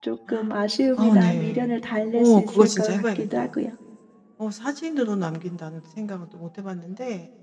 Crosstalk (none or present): present